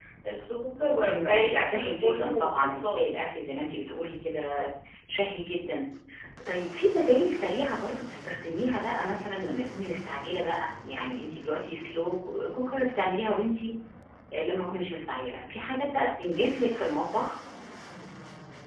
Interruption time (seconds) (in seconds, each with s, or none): 1.1 s